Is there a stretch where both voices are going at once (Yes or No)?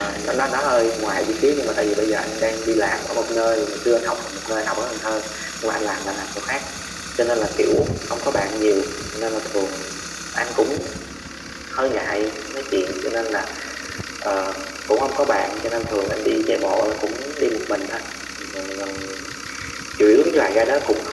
No